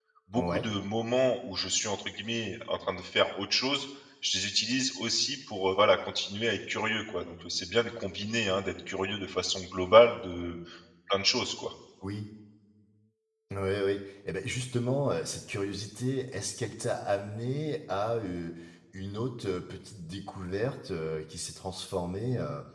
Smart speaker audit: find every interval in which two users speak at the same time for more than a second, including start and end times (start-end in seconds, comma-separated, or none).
none